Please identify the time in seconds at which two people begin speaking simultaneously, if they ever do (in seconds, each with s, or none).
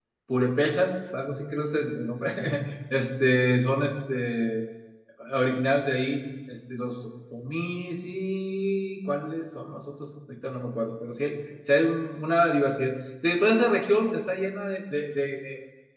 none